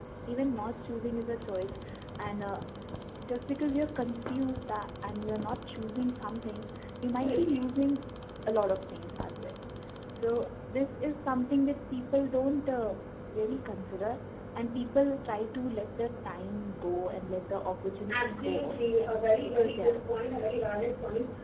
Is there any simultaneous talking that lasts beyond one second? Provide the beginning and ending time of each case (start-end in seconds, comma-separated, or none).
18.1-20.4